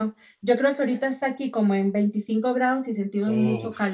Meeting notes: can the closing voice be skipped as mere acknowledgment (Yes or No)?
No